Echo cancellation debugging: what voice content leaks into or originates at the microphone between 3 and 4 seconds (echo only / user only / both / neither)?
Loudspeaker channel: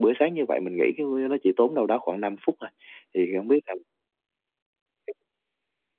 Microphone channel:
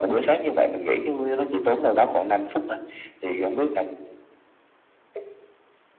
echo only